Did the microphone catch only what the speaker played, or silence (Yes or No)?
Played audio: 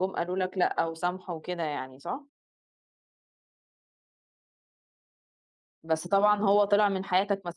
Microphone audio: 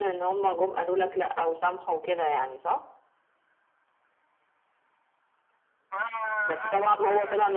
No